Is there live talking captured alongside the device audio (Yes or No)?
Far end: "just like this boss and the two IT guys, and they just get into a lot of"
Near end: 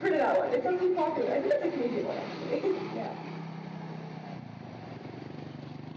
Yes